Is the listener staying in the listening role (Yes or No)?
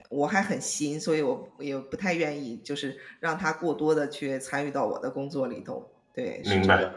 No